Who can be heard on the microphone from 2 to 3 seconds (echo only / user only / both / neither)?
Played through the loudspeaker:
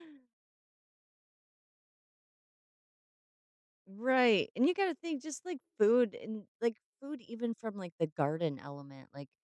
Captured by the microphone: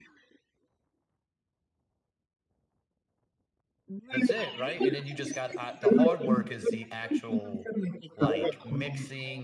neither